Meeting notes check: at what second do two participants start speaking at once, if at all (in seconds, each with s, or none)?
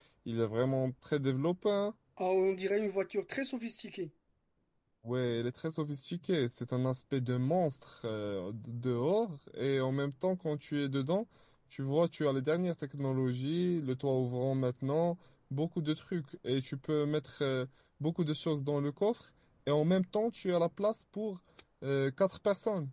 none